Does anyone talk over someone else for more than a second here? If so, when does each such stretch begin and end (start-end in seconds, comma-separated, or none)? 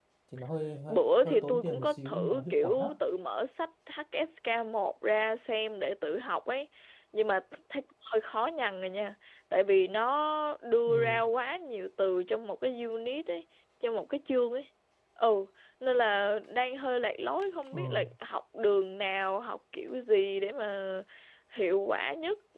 0.9-2.9